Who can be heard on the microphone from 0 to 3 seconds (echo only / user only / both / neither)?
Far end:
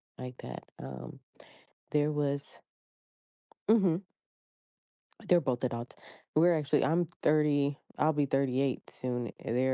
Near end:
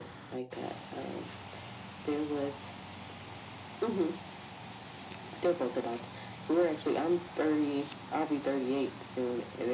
echo only